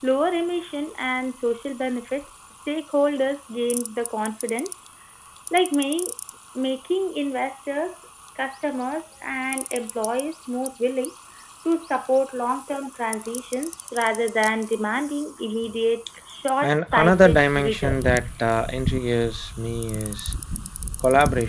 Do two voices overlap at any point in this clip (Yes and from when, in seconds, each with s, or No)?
Yes, from 16.6 s